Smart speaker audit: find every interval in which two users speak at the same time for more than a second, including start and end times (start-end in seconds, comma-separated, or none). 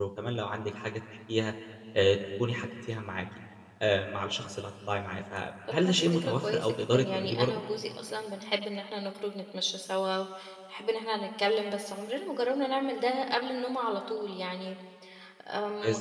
5.7-7.6